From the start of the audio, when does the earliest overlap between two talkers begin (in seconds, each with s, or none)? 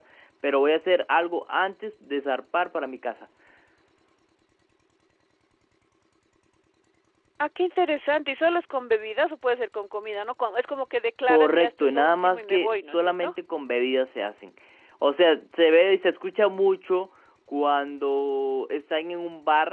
11.3 s